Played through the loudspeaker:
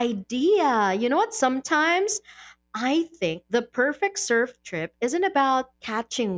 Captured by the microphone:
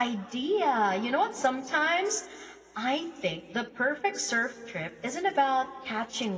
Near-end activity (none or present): none